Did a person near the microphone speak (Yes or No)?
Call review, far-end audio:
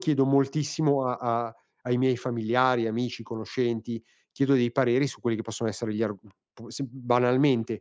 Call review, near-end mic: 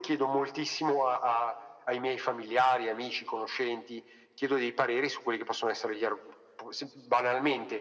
No